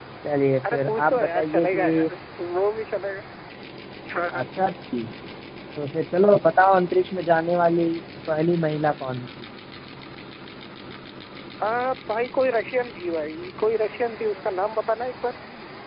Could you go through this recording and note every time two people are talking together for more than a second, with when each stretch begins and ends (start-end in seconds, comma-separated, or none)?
0.7-2.1